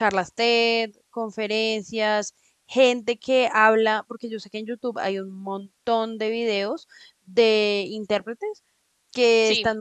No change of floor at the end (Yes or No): Yes